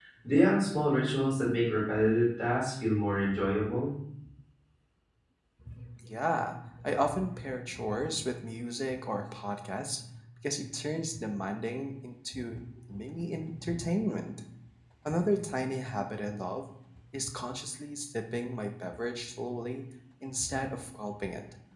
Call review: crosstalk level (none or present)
none